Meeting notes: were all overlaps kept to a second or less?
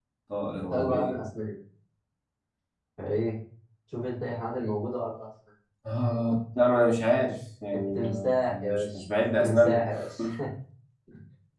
No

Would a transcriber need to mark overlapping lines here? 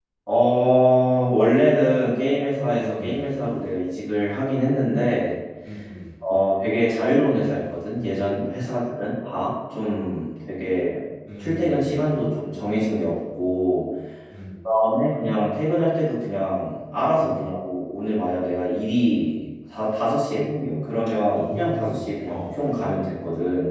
Yes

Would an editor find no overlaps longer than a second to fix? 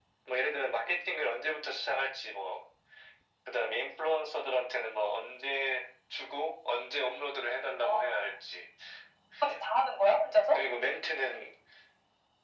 Yes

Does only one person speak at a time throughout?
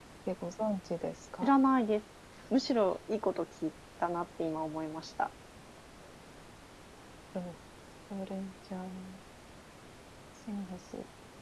Yes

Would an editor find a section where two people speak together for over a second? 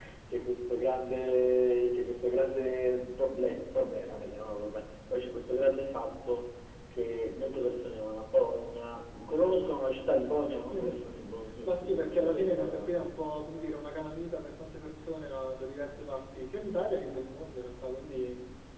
Yes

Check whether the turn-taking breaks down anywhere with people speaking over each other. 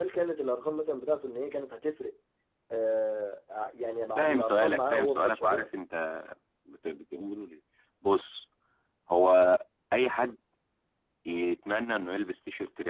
Yes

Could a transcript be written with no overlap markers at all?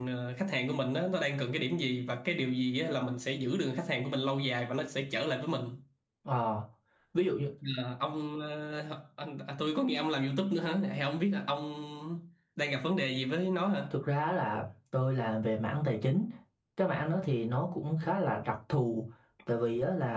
Yes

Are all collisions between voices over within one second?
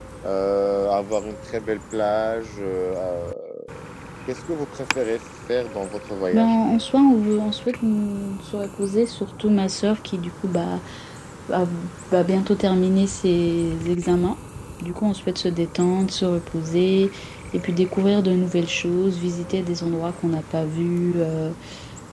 Yes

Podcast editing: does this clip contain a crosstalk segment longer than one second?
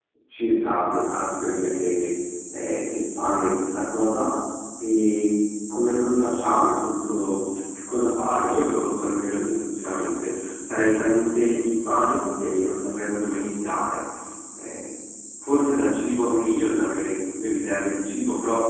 No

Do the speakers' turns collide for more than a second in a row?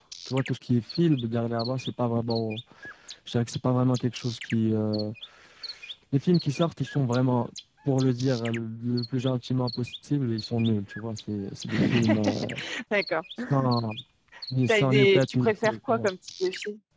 Yes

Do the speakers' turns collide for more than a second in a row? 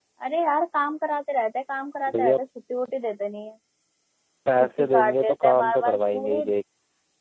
Yes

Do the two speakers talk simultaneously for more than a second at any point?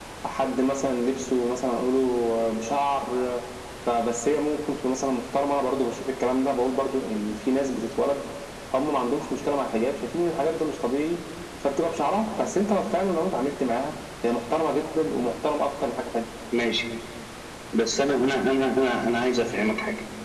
No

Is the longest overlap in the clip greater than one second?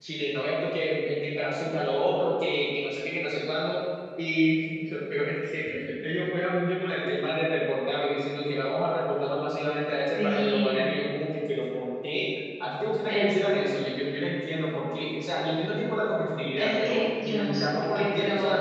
Yes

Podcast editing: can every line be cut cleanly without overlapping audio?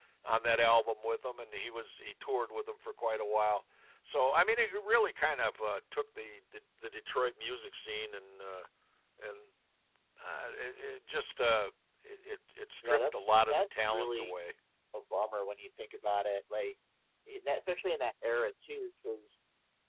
No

